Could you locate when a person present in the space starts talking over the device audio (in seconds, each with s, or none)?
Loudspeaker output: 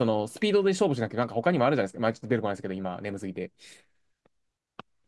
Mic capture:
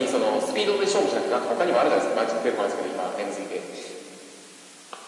none